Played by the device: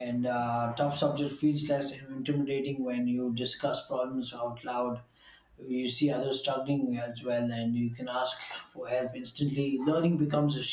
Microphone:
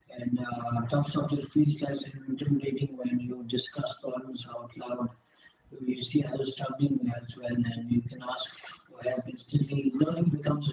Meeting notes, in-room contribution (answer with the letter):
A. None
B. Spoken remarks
A